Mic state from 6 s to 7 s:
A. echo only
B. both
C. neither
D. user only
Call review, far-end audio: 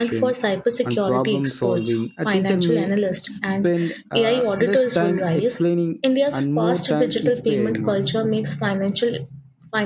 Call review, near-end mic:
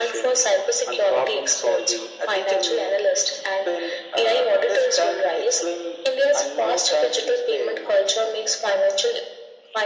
A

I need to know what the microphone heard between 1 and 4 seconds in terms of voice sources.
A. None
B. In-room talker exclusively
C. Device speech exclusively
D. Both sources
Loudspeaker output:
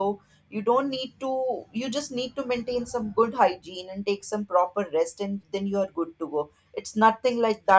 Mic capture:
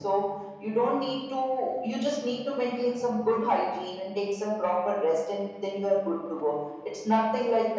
C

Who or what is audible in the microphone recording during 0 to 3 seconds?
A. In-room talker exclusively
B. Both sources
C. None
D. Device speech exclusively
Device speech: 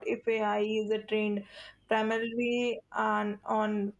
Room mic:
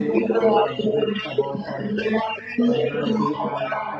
B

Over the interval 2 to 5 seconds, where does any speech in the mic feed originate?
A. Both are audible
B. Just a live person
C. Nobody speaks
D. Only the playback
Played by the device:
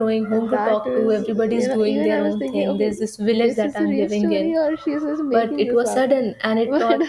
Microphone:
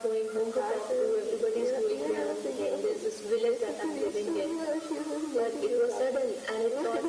D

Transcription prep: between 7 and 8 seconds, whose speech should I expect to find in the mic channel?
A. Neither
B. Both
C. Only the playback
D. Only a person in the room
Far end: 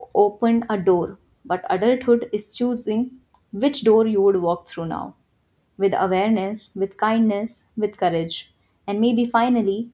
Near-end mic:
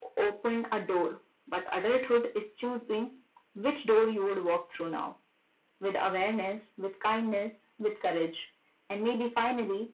C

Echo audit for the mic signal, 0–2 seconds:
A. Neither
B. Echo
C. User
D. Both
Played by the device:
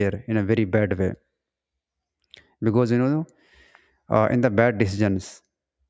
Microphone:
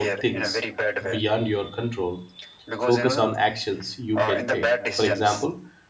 D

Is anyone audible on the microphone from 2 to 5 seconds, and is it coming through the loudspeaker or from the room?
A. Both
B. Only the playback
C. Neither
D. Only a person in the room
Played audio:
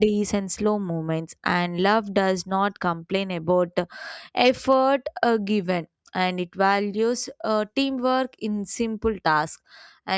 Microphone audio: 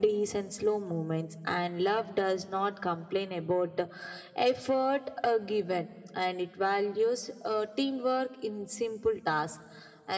B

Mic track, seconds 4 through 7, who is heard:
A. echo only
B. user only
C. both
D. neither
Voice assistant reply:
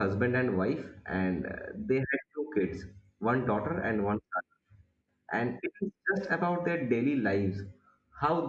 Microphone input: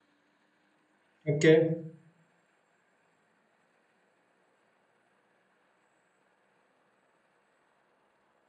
D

